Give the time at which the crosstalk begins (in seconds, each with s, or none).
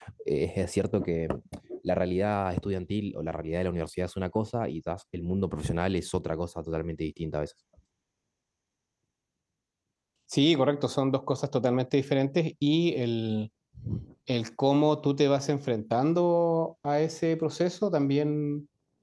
none